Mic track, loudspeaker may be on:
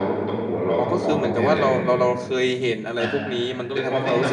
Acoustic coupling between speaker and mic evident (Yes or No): Yes